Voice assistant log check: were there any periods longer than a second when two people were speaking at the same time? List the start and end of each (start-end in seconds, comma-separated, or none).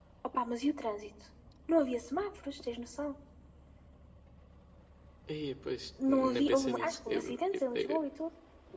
6.1-8.0